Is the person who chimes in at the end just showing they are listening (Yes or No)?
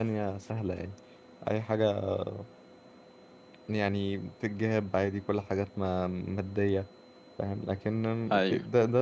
Yes